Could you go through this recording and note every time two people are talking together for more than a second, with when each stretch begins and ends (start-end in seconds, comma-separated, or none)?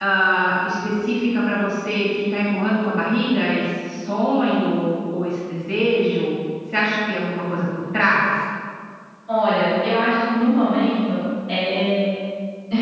none